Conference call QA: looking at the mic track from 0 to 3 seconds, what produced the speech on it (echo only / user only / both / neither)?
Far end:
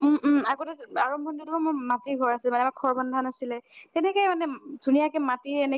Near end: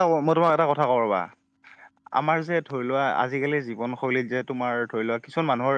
user only